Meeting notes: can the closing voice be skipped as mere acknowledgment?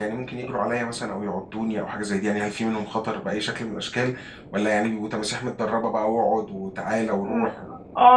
No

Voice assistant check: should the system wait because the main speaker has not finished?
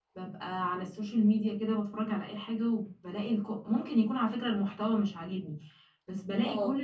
Yes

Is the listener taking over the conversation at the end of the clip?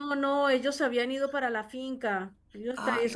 No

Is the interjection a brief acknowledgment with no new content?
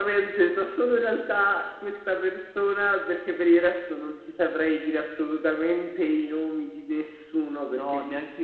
No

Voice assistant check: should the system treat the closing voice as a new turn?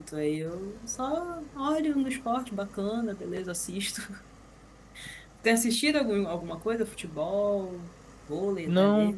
Yes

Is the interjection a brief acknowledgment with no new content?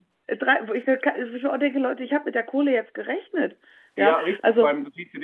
No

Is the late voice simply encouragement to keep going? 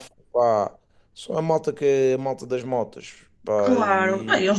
No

